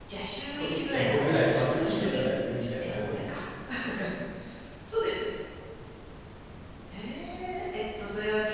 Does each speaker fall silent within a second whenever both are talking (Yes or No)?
No